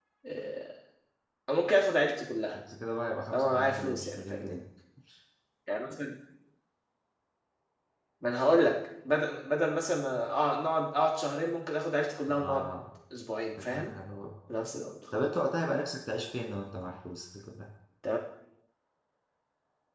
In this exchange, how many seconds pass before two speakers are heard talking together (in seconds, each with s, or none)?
3.3 s